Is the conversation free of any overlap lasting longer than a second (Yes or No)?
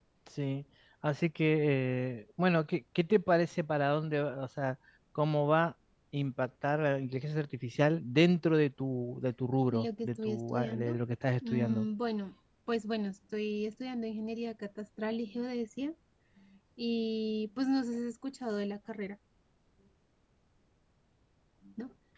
No